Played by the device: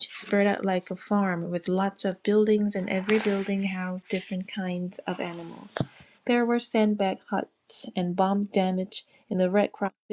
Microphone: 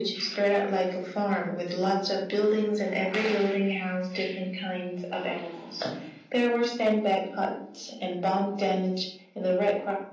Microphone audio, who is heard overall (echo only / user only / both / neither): echo only